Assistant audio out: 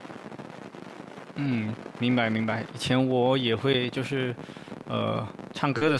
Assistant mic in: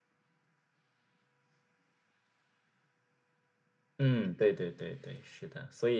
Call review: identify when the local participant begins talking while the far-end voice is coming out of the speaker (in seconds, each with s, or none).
4.0 s